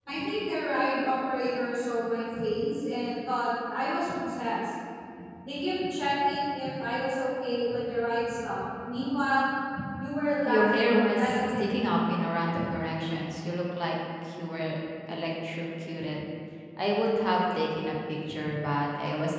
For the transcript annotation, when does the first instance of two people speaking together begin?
10.5 s

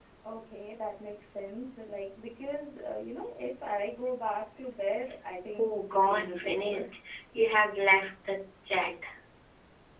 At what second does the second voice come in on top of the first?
5.6 s

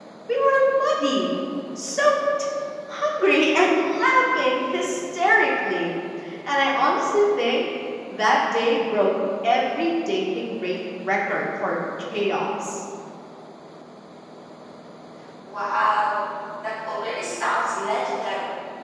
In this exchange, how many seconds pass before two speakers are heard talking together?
none

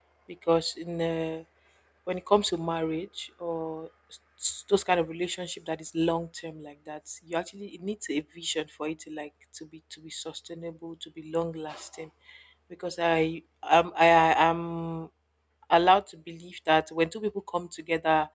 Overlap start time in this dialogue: none

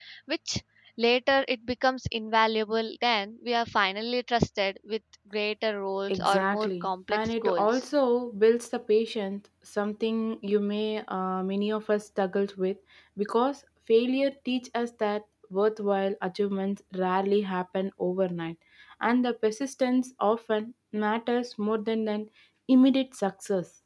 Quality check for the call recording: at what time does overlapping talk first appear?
6.1 s

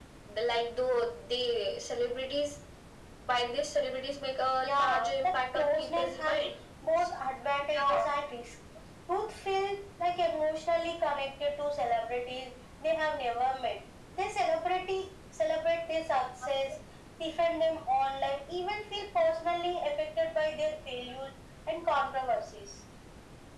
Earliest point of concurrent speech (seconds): 4.6 s

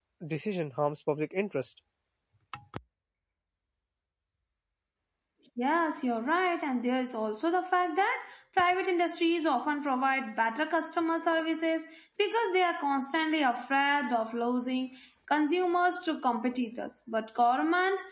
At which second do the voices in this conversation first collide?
none

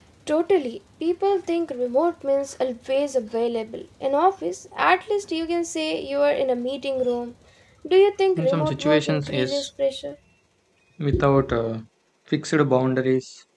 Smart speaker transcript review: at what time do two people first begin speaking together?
8.4 s

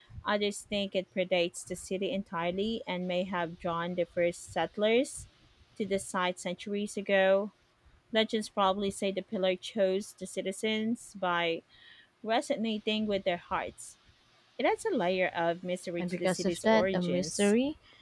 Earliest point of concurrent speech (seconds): 16.0 s

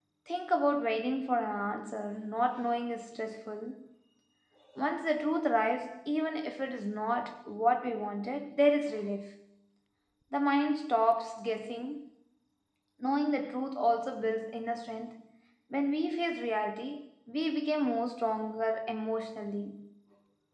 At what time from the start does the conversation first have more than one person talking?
none

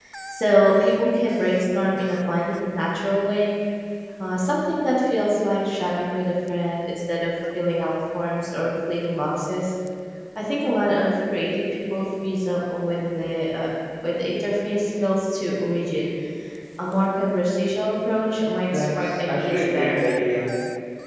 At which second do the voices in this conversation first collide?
18.7 s

